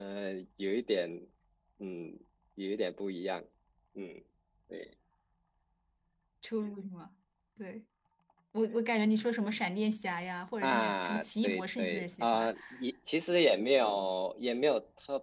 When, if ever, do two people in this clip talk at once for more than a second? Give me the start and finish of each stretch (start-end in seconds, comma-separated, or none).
10.6-12.5